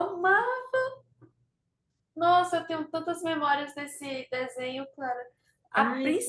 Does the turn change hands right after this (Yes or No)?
No